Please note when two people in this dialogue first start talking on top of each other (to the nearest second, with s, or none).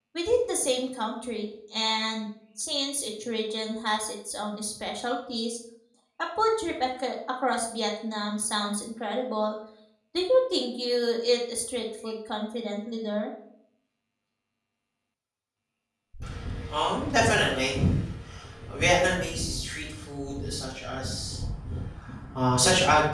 none